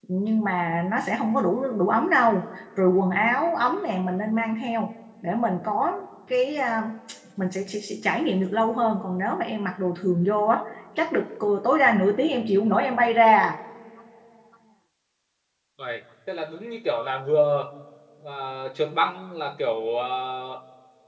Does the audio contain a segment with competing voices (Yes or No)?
No